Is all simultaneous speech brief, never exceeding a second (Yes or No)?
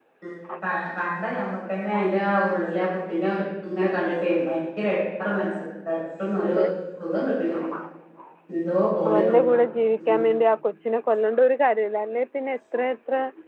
Yes